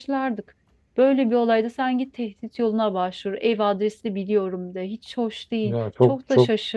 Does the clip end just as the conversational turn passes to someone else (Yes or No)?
Yes